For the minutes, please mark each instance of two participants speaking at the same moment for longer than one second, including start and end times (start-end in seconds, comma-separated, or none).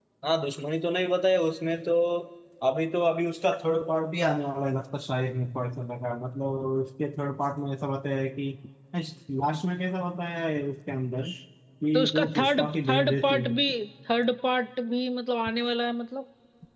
11.9-13.6